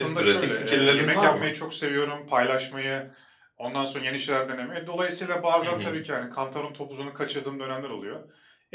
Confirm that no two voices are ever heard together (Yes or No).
No